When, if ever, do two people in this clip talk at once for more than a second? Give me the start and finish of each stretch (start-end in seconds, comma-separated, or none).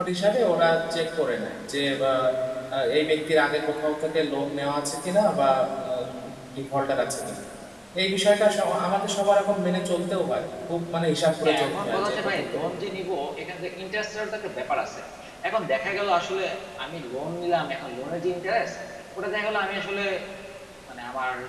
11.4-12.7